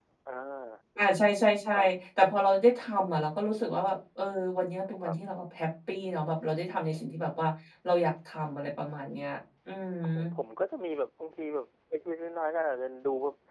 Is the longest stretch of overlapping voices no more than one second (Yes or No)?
Yes